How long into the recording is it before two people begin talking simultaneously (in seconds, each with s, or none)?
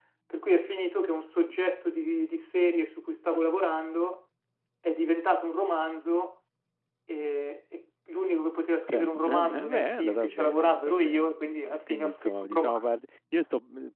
8.9 s